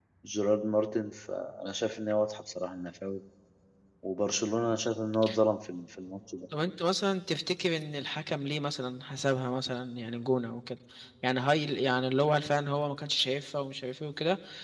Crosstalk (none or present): none